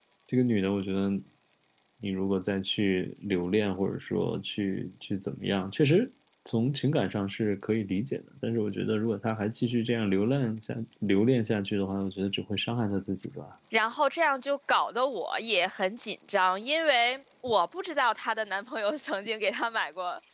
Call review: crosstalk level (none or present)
none